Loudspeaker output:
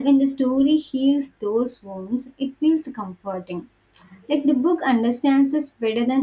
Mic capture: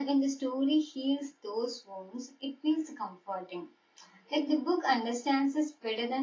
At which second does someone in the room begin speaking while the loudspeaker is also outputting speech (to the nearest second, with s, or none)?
none